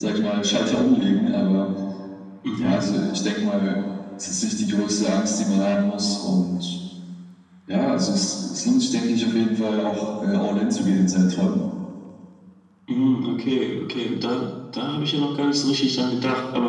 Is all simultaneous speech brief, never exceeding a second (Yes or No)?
Yes